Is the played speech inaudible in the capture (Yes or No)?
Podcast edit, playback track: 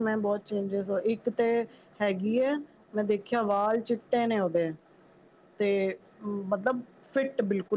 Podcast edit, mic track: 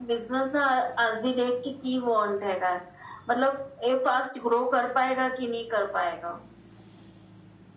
Yes